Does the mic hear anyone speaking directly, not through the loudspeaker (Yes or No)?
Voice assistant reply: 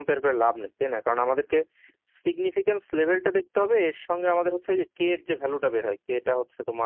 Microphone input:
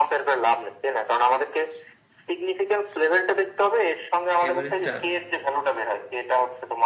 Yes